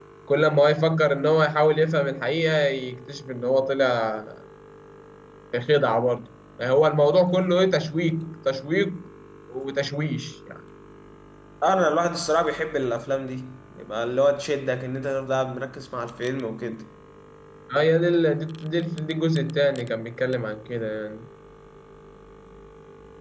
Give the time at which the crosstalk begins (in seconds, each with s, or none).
none